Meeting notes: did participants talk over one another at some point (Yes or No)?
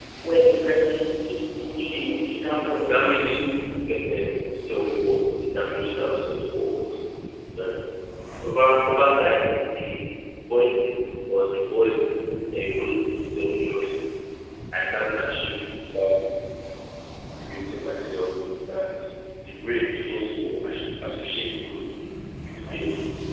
Yes